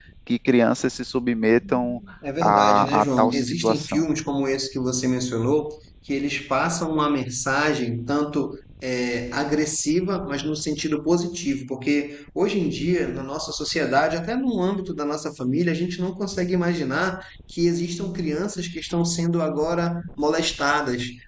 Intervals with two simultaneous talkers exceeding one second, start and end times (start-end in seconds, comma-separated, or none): 2.4-4.0